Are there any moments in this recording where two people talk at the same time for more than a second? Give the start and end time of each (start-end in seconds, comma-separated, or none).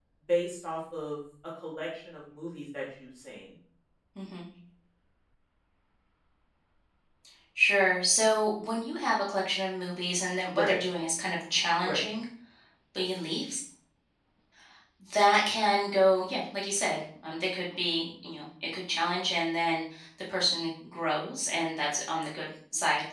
none